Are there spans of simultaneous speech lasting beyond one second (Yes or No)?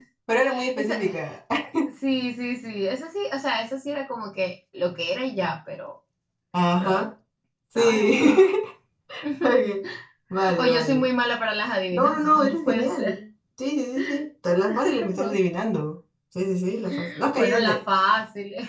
Yes